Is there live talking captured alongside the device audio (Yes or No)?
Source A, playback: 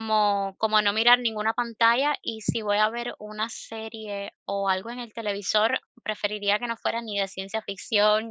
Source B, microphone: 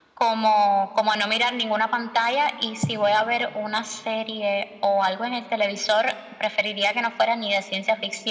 No